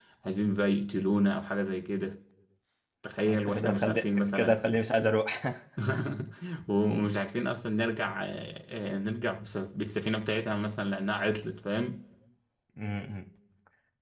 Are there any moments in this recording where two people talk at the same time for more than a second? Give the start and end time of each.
3.3-4.6

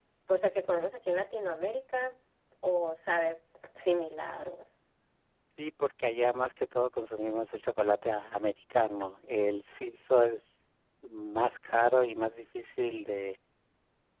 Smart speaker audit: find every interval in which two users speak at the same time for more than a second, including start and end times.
none

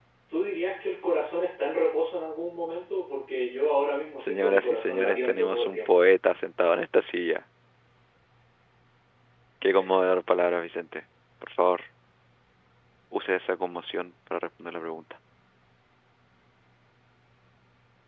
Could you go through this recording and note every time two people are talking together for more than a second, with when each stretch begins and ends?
4.2-5.9

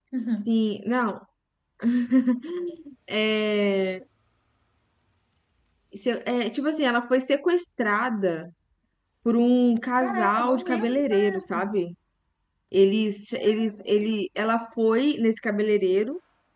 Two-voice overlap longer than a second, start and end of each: 9.9-11.7

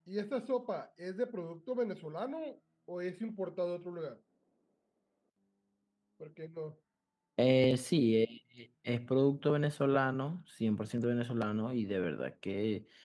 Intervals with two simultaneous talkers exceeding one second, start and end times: none

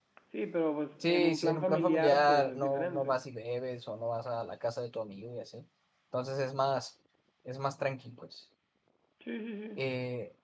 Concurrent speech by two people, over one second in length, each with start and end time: 1.0-3.1

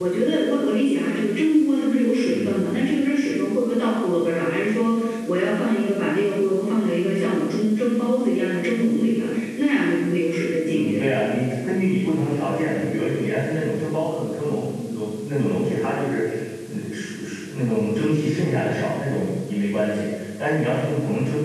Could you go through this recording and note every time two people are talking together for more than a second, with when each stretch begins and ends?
none

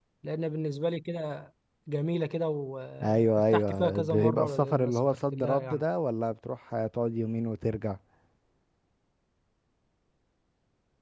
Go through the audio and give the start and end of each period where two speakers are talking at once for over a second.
3.0-5.8

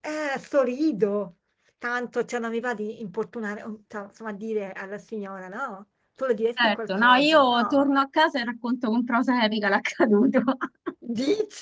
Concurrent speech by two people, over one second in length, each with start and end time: 6.6-7.9

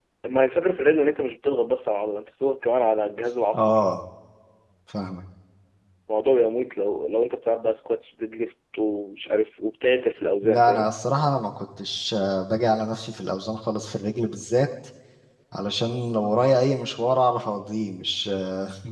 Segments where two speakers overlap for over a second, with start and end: none

